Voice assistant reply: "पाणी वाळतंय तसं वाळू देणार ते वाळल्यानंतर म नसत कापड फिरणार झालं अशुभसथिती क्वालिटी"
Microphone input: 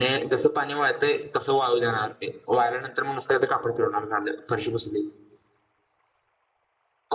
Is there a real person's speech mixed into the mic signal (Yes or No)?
No